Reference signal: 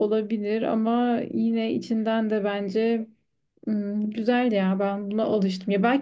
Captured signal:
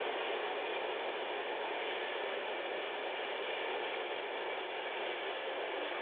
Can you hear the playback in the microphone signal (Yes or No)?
No